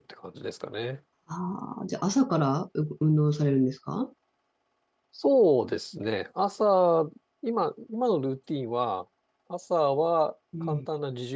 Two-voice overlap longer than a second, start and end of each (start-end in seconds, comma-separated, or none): none